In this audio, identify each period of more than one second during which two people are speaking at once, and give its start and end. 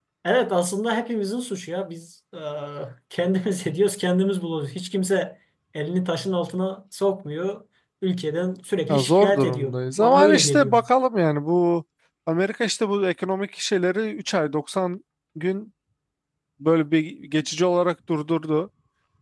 8.9-10.8

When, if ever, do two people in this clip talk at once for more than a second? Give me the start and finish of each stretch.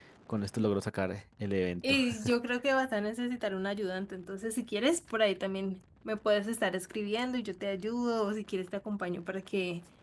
none

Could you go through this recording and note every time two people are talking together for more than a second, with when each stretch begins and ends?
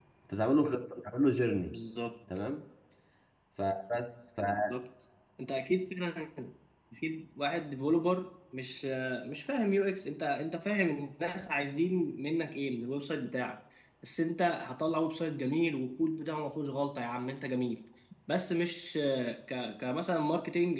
none

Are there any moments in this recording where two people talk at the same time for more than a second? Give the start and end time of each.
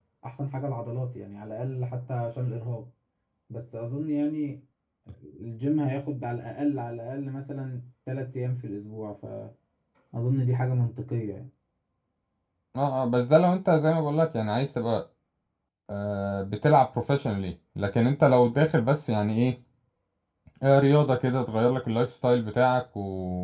none

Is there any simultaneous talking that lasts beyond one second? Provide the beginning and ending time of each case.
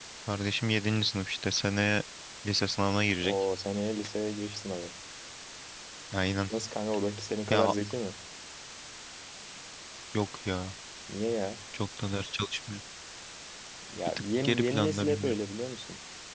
14.1-15.4

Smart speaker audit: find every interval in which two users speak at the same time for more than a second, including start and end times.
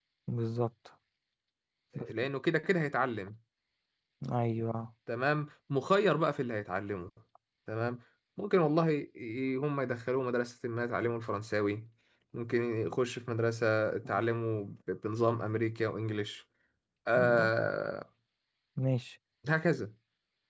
none

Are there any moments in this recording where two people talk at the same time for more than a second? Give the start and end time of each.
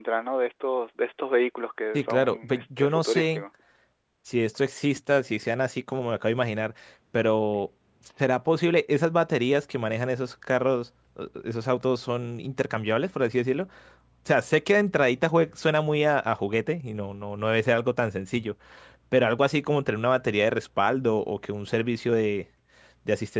1.9-3.4

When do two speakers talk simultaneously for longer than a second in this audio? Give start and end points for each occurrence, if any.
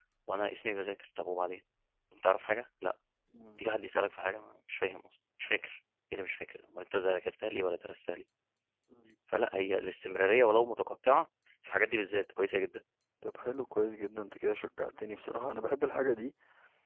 none

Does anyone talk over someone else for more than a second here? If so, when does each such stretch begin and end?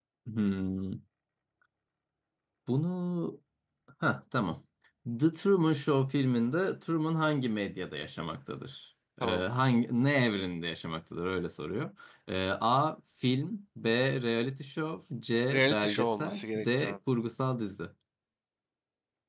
15.5-17.0

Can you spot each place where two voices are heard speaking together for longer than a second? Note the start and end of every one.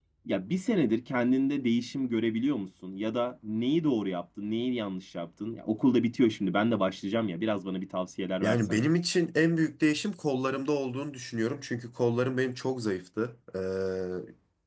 none

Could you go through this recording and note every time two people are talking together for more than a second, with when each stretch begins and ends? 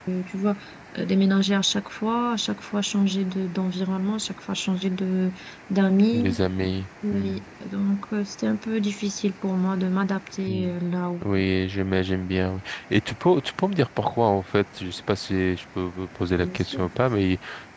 none

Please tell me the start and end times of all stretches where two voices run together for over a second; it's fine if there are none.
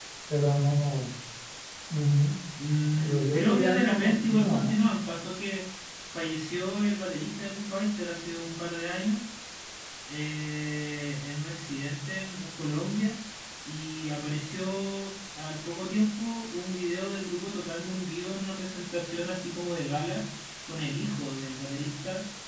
3.0-4.7

